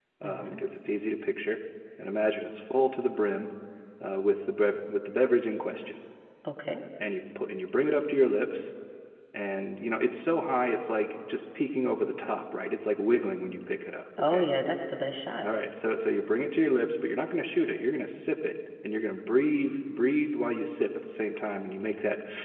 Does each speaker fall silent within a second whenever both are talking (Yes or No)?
Yes